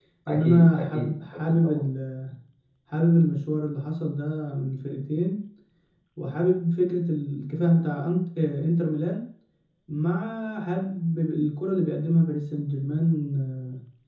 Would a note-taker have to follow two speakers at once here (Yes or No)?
Yes